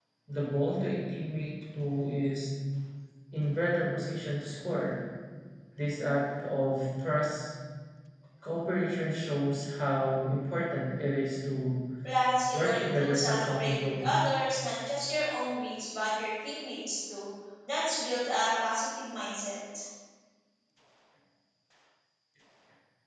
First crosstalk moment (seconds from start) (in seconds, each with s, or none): 12.5 s